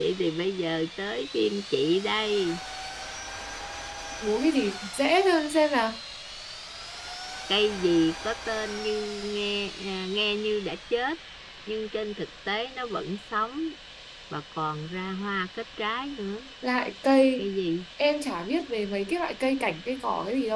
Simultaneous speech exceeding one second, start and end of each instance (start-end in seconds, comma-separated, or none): none